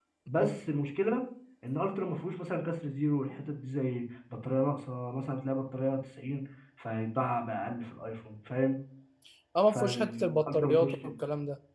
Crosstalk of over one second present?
Yes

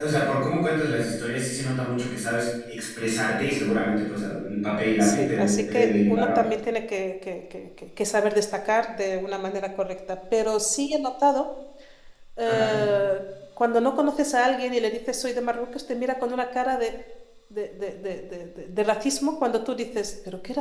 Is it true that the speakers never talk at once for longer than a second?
No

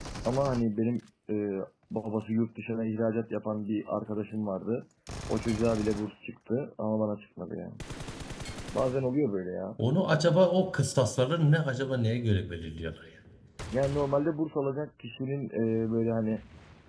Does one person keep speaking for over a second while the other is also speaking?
No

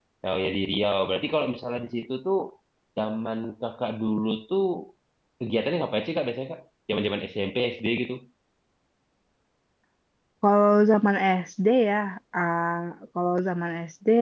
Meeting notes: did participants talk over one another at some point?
No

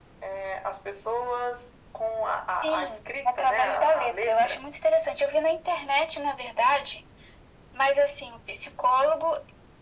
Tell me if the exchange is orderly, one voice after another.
No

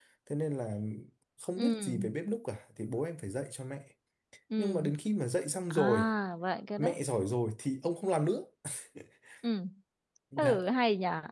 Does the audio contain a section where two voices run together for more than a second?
No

